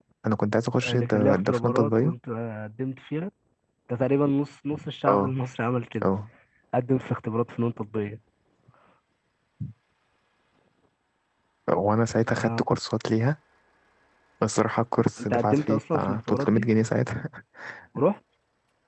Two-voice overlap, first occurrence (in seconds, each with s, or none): 0.8 s